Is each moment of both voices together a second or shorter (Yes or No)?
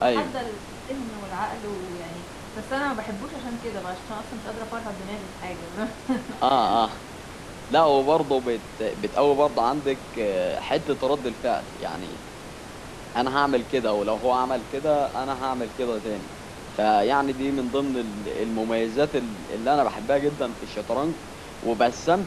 Yes